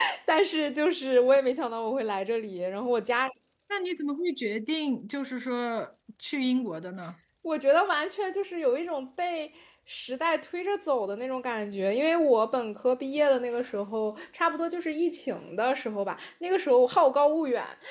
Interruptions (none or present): none